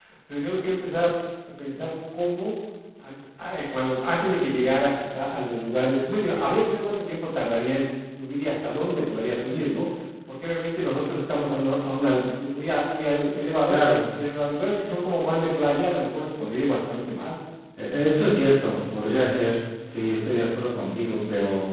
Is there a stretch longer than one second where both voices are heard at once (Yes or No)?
No